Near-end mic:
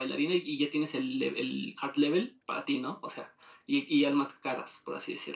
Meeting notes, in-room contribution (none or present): none